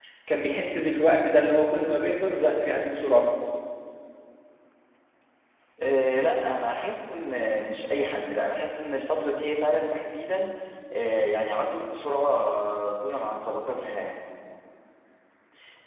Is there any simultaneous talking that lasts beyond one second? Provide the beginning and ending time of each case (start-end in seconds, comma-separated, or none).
none